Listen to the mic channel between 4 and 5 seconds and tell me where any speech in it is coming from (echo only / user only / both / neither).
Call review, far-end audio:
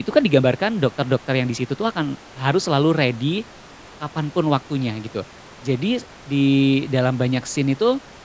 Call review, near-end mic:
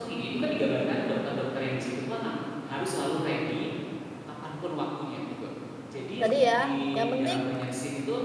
echo only